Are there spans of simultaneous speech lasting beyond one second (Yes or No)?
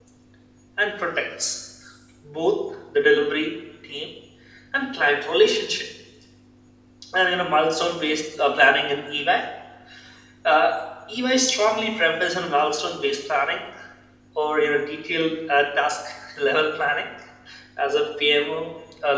No